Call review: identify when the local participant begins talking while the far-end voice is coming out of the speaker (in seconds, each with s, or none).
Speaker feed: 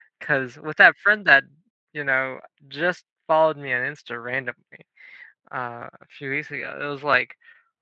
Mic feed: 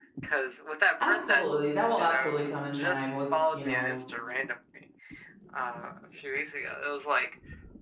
1.0 s